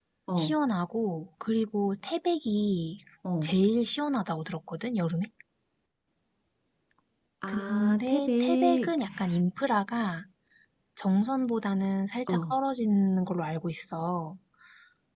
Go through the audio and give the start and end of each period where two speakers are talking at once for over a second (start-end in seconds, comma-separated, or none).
7.5-8.9